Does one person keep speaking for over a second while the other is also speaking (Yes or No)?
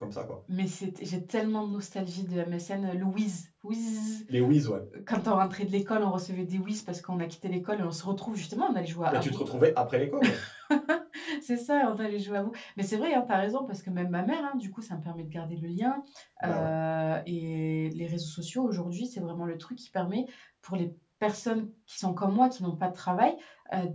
No